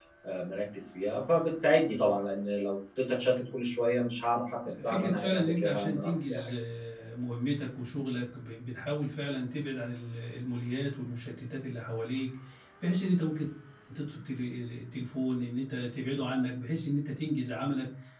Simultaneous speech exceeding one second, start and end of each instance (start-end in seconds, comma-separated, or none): 4.8-6.5